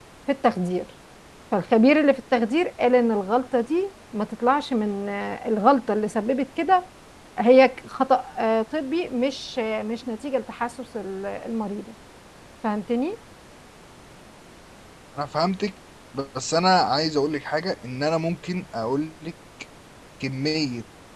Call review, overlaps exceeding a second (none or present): none